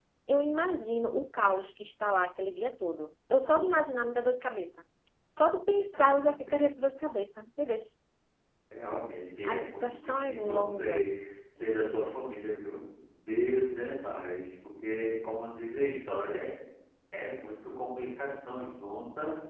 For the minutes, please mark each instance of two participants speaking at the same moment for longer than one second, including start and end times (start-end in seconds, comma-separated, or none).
9.4-11.1